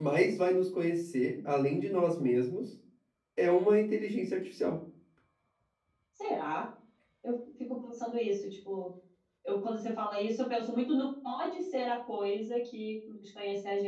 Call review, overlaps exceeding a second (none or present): none